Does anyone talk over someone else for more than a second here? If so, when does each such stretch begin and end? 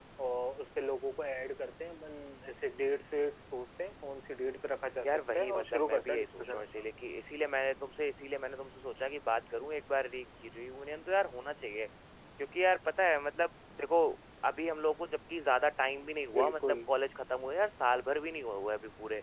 5.0-6.8

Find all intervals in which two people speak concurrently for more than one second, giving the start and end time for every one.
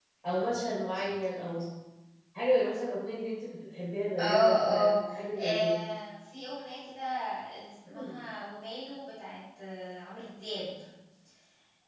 4.2-5.8

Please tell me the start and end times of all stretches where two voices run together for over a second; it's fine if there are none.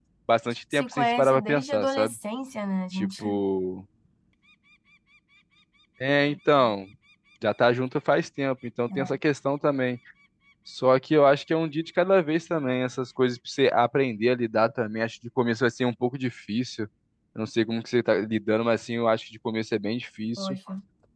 0.7-2.1

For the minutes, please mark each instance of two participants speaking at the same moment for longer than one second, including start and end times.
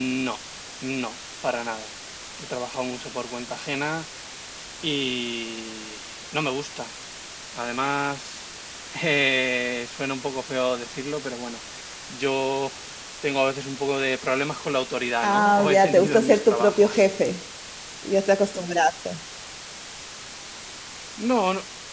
15.2-17.1

